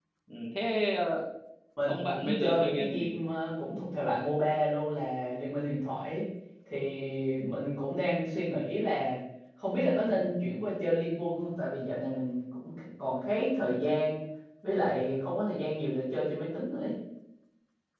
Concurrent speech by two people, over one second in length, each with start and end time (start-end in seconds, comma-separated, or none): 1.9-3.2